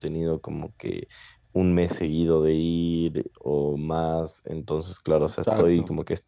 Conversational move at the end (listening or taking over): listening